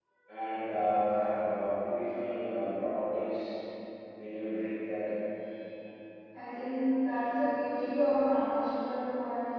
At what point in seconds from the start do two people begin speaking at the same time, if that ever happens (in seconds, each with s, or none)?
none